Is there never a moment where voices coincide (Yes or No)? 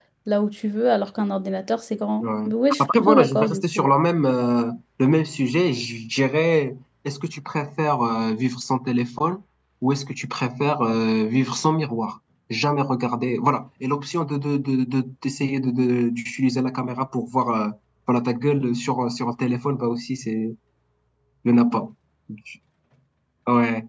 No